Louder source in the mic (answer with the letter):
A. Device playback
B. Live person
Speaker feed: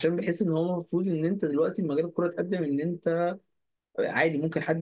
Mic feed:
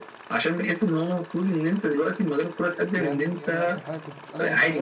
A